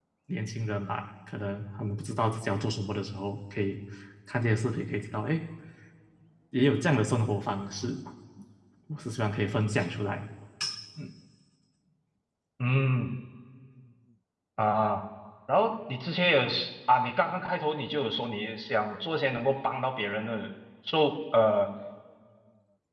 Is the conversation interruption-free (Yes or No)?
Yes